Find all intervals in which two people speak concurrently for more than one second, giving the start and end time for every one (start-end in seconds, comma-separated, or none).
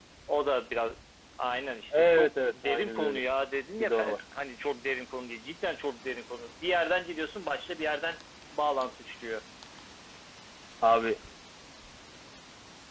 1.9-3.2